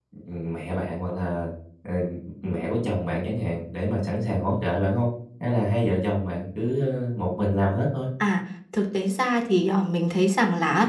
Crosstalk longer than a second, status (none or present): none